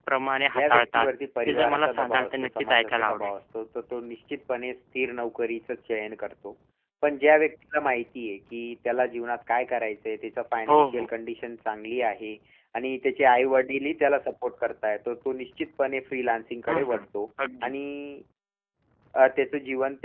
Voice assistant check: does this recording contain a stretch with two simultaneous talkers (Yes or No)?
Yes